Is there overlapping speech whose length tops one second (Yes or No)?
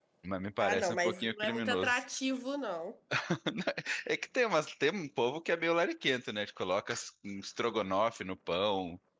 Yes